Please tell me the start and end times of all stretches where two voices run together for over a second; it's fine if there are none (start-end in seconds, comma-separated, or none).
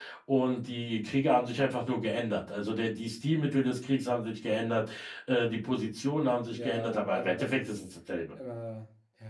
6.5-7.8